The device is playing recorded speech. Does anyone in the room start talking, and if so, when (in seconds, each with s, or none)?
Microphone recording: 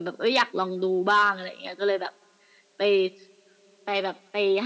none